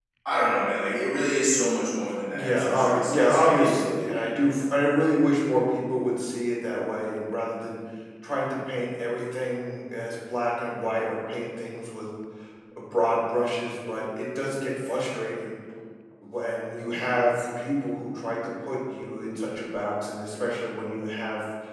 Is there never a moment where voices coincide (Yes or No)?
No